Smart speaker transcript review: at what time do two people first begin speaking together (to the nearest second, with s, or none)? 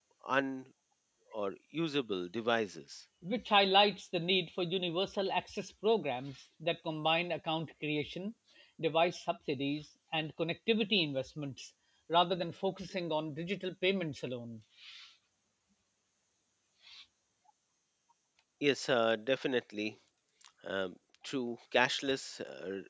none